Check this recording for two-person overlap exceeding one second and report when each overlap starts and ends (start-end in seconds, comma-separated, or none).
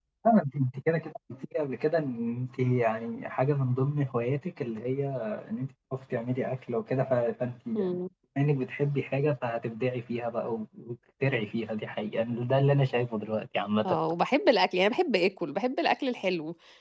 none